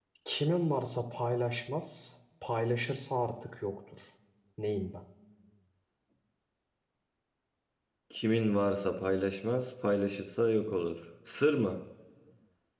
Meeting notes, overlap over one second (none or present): none